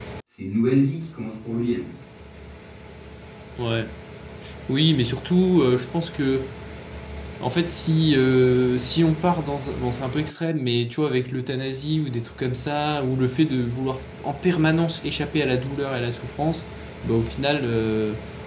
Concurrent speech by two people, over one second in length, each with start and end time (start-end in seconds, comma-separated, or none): none